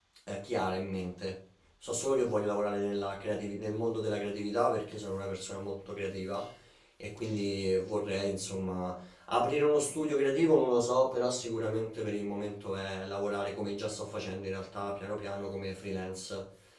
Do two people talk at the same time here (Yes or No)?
No